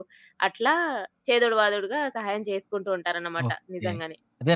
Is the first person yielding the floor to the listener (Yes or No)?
Yes